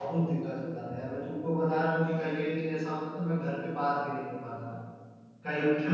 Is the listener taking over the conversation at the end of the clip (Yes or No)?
No